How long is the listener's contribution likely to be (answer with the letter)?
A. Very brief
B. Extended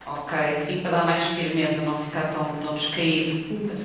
B